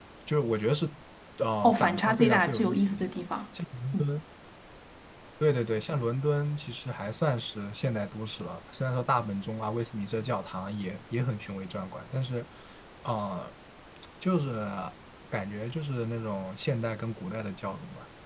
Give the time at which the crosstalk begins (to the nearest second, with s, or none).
2 s